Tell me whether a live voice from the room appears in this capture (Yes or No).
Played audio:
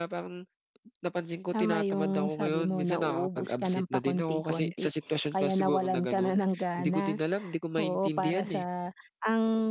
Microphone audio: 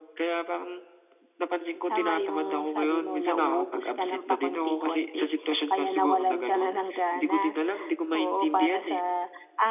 No